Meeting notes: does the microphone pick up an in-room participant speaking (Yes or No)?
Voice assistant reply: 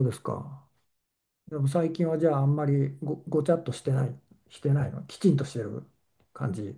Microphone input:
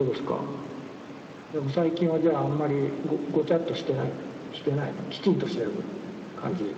No